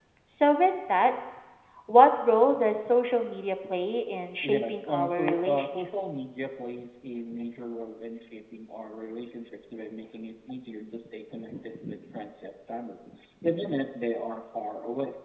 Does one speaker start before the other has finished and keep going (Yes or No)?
Yes